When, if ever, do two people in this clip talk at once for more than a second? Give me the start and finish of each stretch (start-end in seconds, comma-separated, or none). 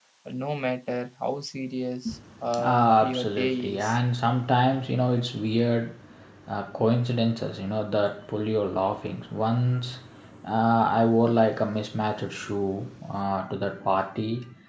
2.6-4.0